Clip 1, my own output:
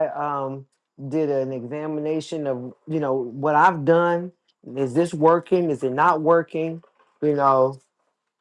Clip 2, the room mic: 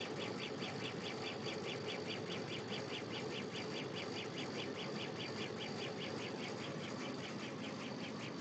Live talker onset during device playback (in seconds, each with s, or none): none